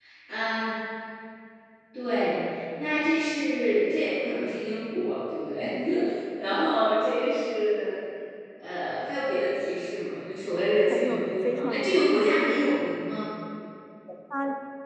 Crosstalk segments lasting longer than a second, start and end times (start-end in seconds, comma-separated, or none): 10.9-12.2